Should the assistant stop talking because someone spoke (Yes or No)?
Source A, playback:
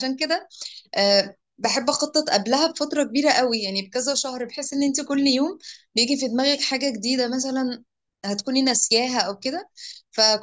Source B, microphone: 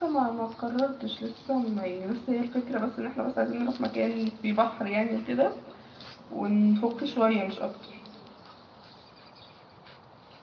Yes